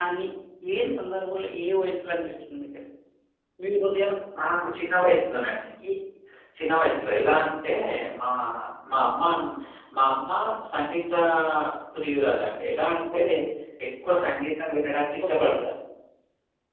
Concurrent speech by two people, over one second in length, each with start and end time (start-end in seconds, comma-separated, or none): none